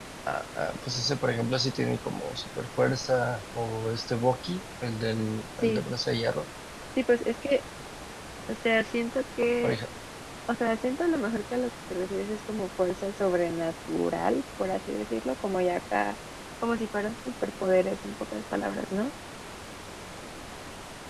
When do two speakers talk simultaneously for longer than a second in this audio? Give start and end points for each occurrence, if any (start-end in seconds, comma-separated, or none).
none